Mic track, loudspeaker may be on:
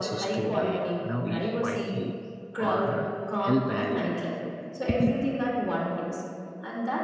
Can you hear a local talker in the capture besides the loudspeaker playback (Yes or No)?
Yes